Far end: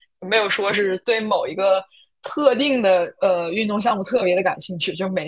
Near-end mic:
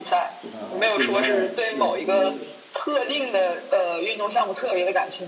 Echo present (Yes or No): Yes